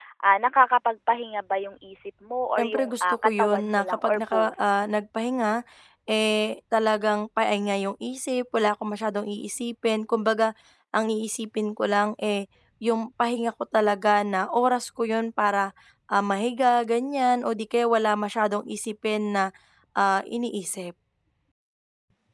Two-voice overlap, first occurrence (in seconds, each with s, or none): 2.6 s